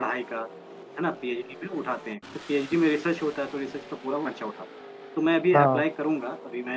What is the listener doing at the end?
listening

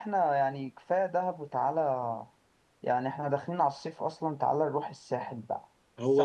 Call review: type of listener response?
taking over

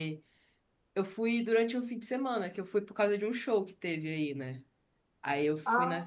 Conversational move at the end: listening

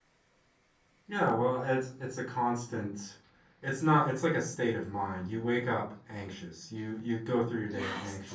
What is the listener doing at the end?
listening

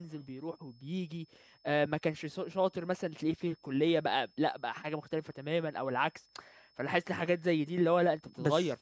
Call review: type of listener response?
taking over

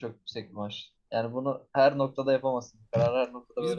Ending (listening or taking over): taking over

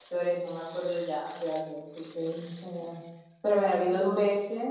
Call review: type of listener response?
listening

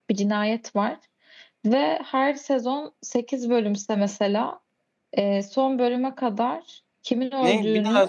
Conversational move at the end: taking over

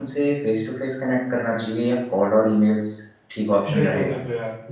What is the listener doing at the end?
taking over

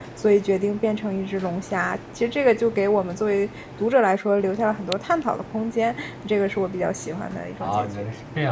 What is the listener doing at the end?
taking over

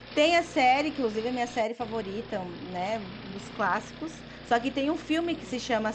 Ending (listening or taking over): listening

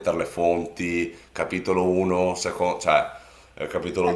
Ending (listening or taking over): taking over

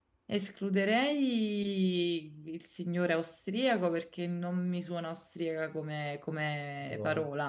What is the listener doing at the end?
listening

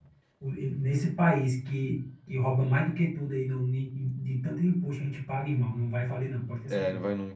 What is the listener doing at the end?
taking over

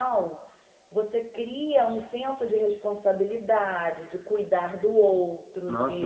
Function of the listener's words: taking over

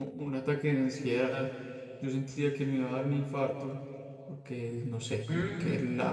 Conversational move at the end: listening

